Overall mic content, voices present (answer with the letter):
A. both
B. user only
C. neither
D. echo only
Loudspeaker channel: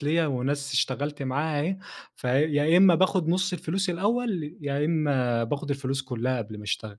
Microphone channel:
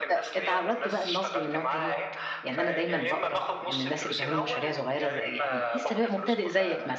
A